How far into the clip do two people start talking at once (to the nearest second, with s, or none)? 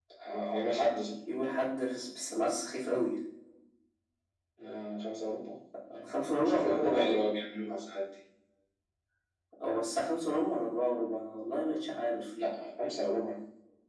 6 s